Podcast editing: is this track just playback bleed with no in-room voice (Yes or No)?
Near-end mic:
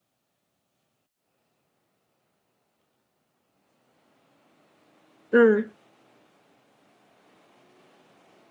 No